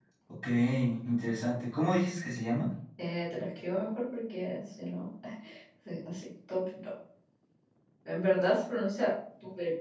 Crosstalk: none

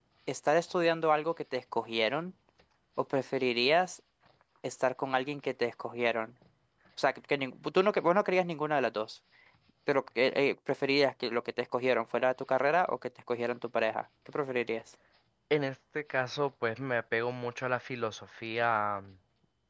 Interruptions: none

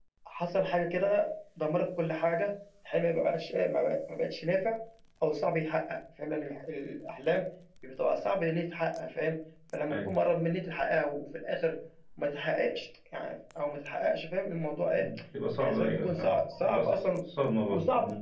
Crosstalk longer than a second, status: present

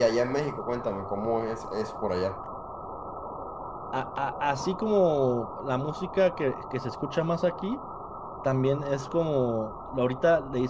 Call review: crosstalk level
none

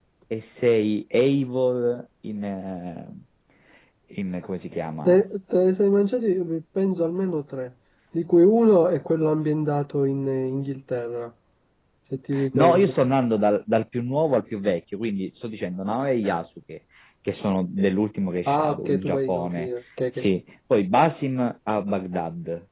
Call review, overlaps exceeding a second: present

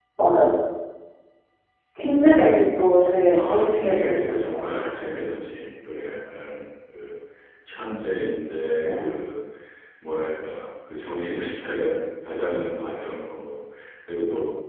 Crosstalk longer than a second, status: present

